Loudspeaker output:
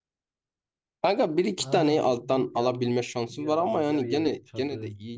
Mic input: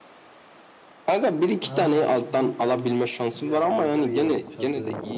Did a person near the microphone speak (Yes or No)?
No